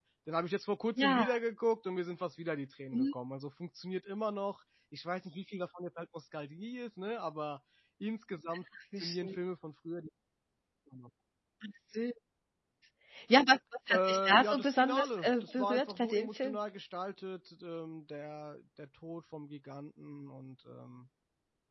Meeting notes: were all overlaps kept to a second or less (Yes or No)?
No